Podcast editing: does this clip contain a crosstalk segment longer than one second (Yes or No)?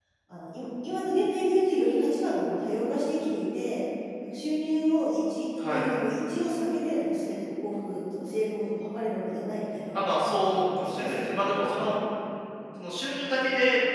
Yes